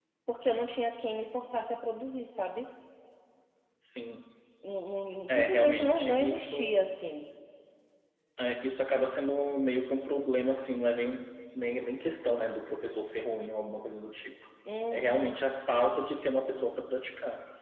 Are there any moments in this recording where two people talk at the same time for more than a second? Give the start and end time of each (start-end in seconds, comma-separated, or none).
5.3-6.8